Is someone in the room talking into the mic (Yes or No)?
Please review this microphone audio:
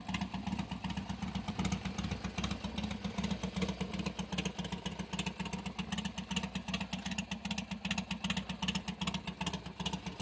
No